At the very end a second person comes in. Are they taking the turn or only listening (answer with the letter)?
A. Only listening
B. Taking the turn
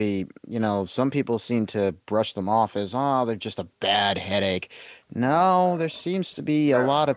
A